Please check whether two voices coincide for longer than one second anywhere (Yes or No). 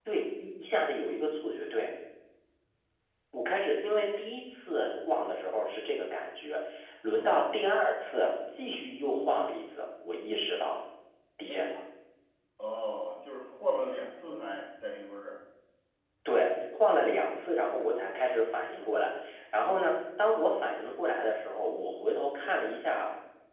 No